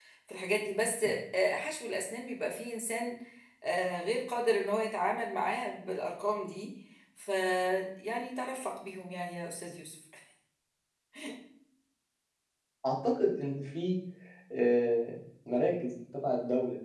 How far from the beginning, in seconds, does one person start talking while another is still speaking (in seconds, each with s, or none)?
none